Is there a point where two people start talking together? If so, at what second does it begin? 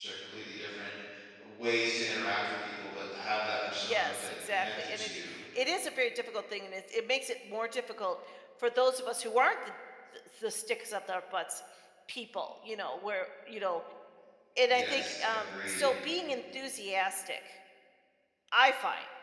4 s

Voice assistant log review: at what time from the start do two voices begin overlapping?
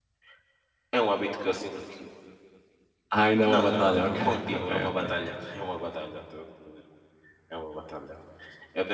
3 s

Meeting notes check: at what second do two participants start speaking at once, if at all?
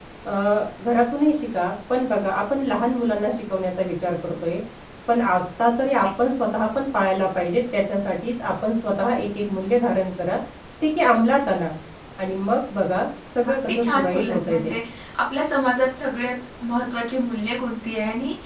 13 s

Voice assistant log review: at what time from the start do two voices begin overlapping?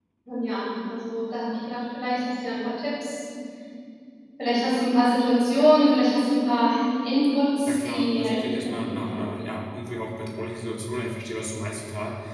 8 s

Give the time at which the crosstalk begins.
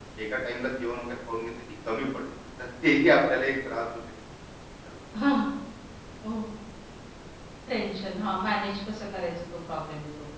none

